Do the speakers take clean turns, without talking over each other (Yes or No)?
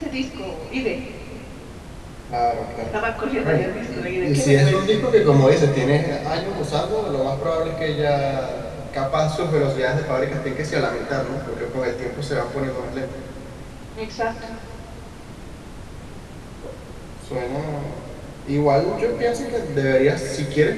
No